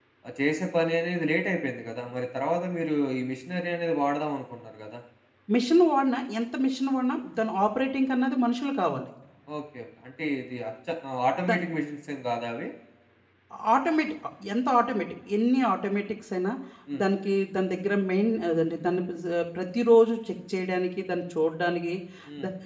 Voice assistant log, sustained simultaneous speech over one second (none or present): none